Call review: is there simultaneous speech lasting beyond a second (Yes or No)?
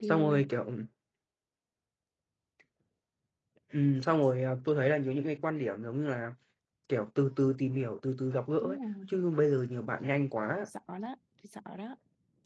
No